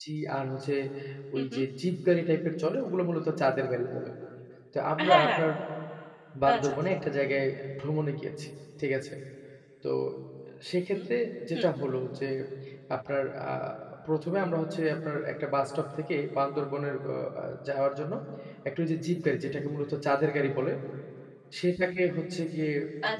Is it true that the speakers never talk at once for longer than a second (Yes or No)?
Yes